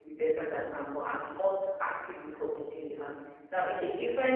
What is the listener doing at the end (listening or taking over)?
listening